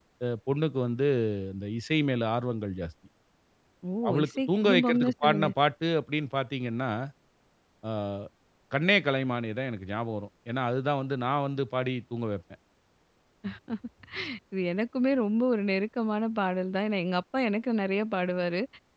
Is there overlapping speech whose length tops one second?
Yes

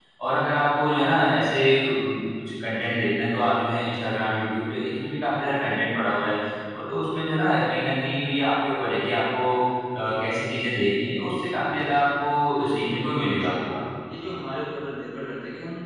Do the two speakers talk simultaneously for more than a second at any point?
Yes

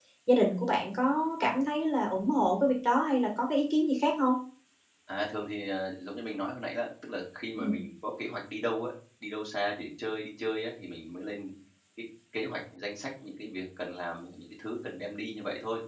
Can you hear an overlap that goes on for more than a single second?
No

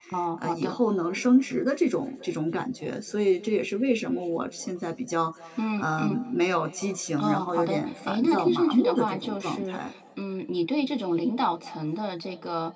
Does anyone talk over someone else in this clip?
Yes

